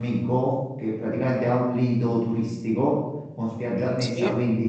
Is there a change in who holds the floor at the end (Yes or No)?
No